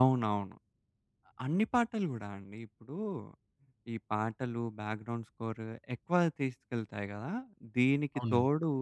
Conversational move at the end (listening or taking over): listening